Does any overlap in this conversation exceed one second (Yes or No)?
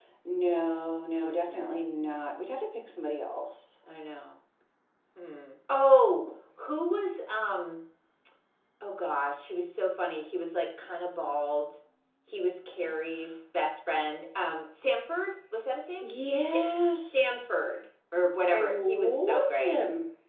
Yes